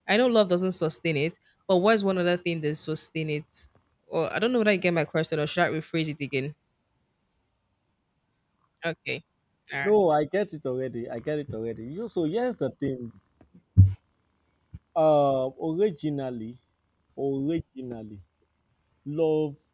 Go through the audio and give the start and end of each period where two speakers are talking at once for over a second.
none

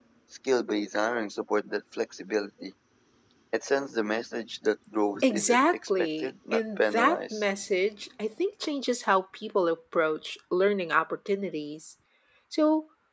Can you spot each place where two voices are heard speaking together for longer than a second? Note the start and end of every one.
5.2-7.4

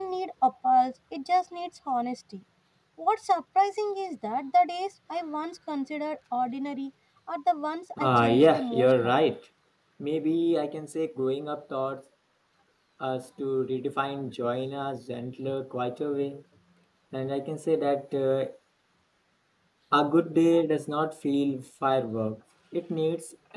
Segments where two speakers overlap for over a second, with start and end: 8.0-9.2

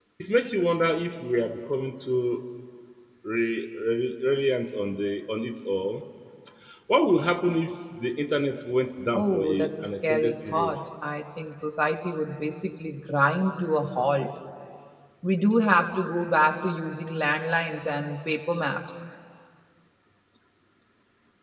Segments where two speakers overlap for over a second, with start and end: 9.1-10.7

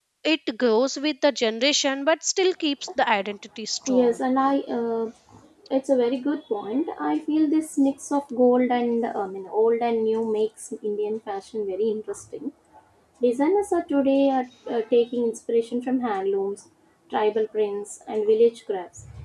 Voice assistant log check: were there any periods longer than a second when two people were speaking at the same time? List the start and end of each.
none

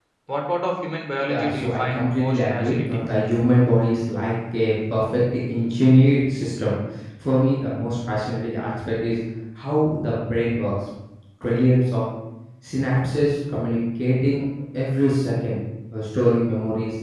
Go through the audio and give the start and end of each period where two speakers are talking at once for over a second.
1.3-3.1

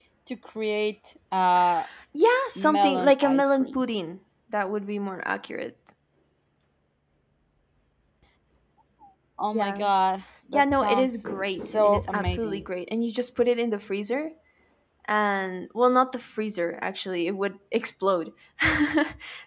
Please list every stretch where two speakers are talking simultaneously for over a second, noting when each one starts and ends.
2.6-3.8, 10.5-12.7

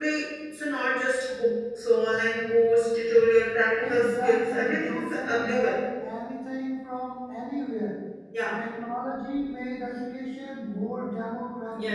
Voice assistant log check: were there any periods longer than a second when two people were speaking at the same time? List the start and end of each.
3.8-5.8

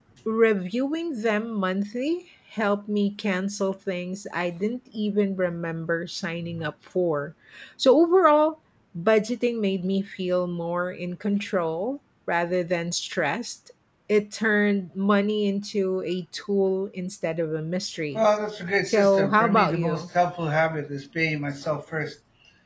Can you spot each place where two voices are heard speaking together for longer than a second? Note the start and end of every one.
18.8-20.0

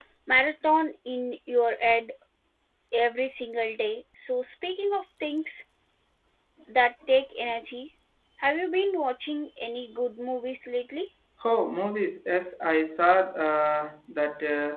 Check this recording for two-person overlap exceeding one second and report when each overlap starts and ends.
none

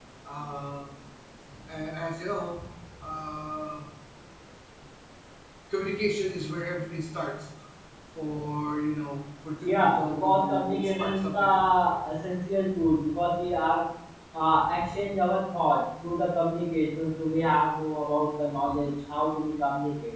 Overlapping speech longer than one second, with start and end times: 9.6-11.6

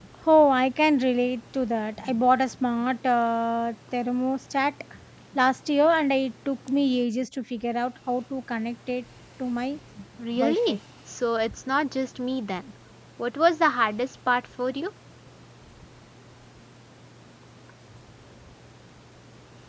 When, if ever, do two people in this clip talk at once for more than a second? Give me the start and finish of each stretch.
none

